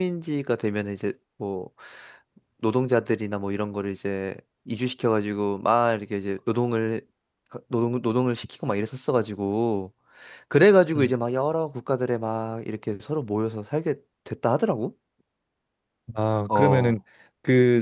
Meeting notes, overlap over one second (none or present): none